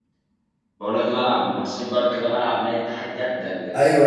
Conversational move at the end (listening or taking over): taking over